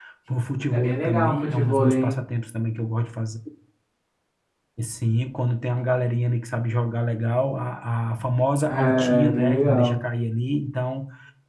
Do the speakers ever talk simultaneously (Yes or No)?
Yes